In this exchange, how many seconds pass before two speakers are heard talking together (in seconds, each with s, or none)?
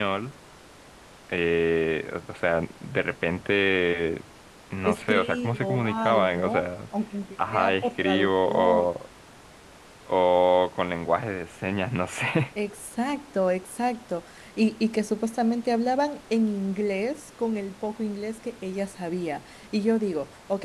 4.8 s